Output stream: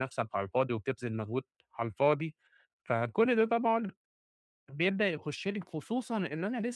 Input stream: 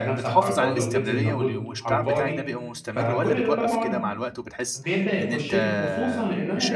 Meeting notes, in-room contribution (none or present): present